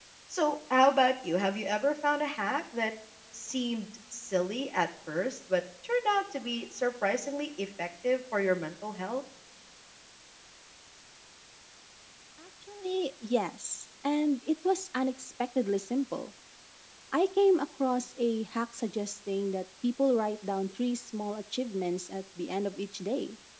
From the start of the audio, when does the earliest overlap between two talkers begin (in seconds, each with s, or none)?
none